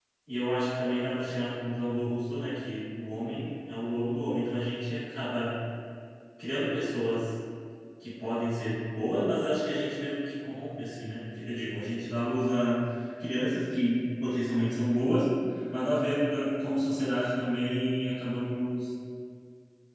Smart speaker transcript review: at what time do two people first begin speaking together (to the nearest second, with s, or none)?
none